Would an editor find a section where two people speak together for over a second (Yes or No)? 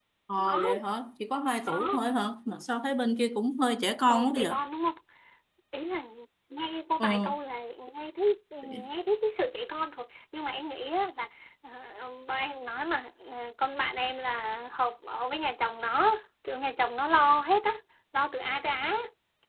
No